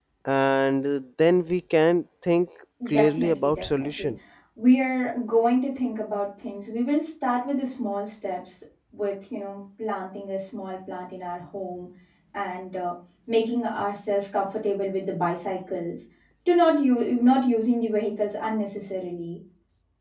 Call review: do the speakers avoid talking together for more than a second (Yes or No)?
No